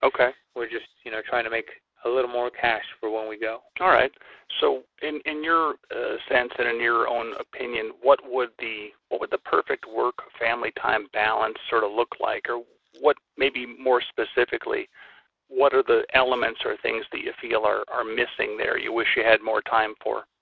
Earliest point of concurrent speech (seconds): none

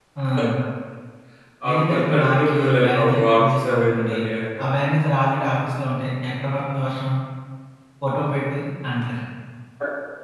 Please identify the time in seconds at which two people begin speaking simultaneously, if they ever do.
1.7 s

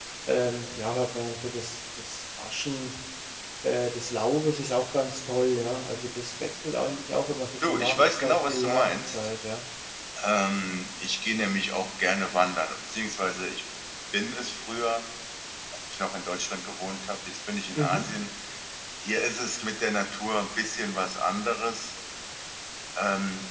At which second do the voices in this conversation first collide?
7.7 s

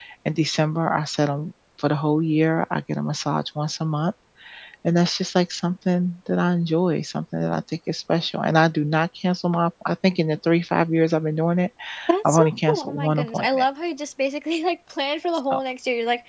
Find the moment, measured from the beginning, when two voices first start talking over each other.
12.2 s

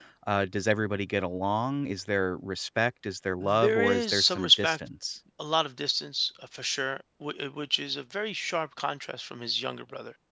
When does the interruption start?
3.4 s

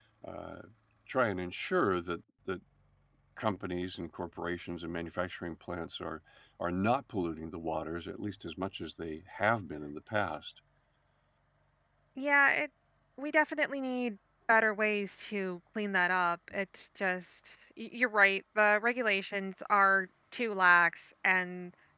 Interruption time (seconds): none

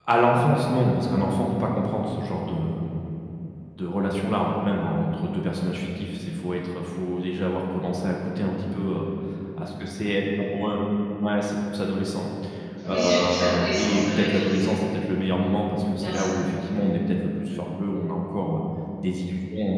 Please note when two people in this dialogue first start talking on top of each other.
12.9 s

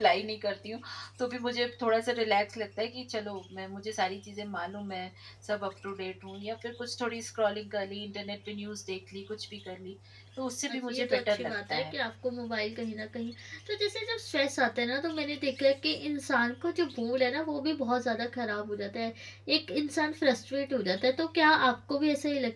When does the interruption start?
10.7 s

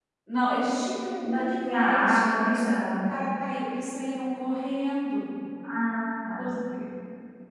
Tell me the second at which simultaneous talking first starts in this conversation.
1.2 s

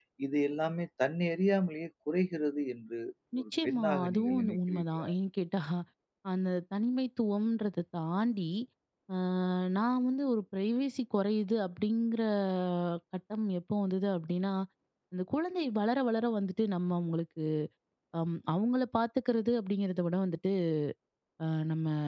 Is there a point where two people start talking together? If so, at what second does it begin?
3.4 s

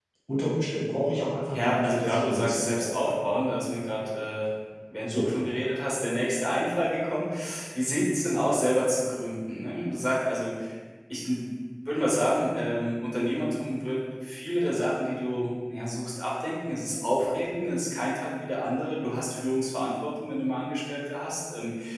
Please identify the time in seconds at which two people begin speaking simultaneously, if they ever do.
1.5 s

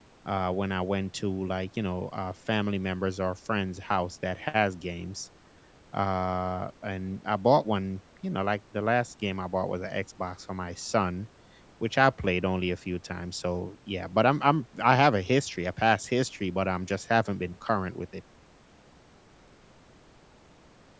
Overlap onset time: none

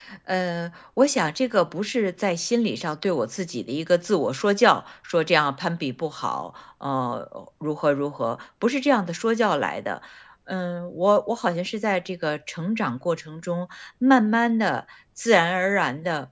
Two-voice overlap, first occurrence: none

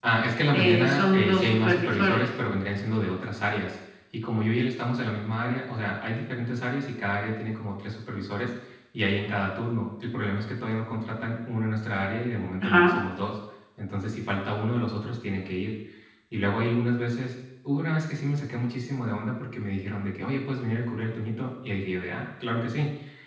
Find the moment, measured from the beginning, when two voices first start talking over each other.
0.5 s

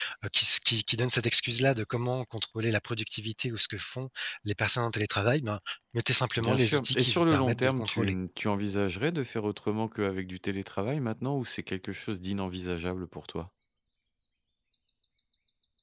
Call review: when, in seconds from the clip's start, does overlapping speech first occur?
6.4 s

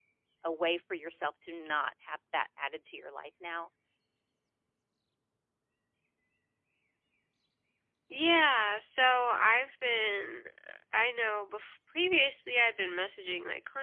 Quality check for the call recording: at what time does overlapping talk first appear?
none

